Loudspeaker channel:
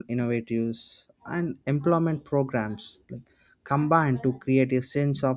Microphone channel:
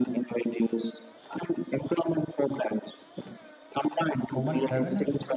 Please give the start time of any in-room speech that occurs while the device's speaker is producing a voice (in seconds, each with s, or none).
4.3 s